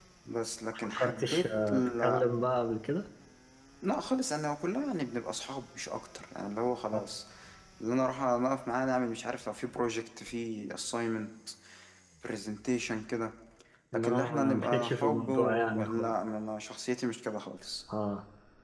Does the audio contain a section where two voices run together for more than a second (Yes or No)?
Yes